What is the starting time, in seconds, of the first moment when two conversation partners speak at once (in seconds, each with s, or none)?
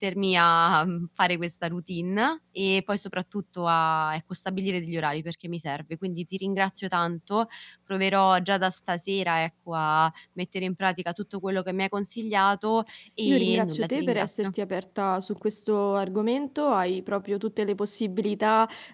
13.2 s